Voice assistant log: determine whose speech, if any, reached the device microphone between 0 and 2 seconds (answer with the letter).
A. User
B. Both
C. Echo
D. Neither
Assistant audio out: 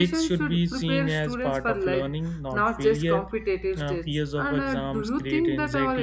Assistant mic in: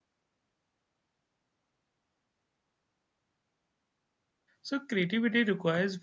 D